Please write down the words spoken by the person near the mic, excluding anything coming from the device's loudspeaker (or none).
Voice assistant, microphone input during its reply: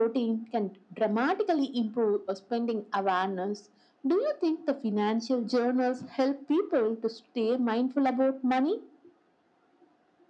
none